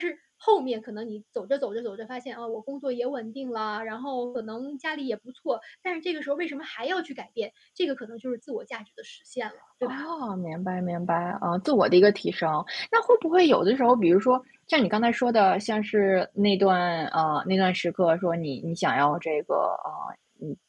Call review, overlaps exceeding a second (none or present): none